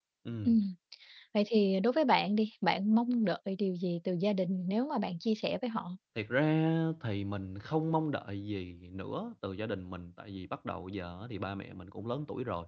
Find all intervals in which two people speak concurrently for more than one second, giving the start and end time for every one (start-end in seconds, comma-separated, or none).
none